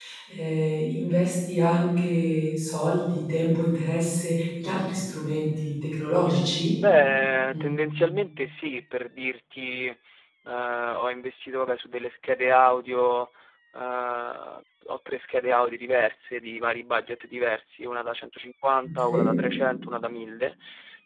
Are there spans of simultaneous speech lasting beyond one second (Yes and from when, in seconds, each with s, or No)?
No